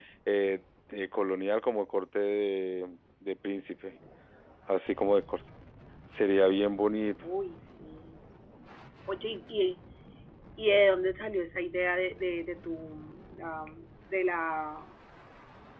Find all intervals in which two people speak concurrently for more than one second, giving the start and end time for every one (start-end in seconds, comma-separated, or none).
none